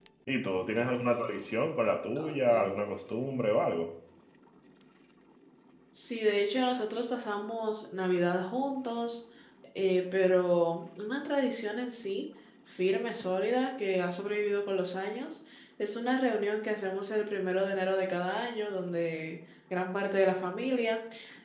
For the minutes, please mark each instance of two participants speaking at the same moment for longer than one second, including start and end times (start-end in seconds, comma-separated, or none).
none